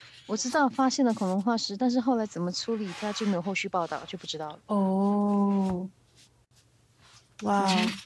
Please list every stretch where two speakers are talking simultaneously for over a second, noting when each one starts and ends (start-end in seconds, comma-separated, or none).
none